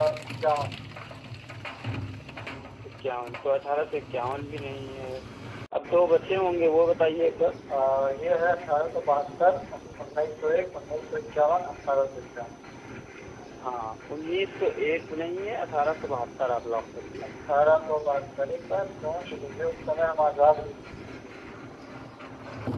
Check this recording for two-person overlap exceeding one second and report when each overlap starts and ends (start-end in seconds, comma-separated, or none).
none